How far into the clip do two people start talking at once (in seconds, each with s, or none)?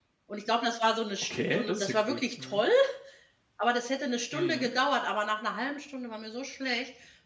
1.2 s